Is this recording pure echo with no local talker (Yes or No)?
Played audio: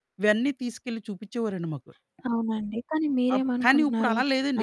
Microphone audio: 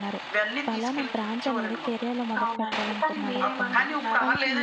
No